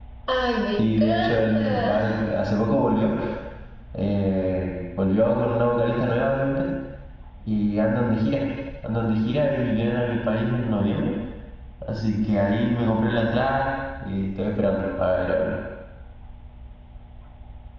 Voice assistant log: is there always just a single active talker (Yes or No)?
No